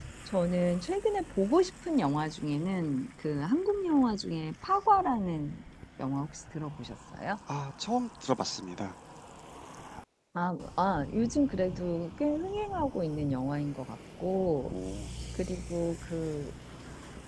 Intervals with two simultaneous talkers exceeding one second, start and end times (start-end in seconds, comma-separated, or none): none